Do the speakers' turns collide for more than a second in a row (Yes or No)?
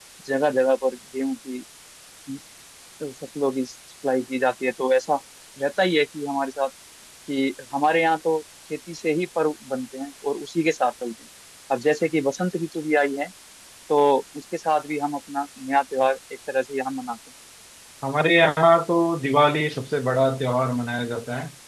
No